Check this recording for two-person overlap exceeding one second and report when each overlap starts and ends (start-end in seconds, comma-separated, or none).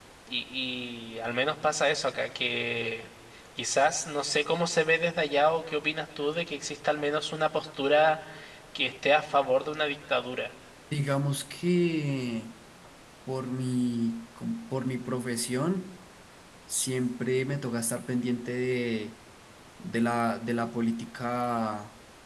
none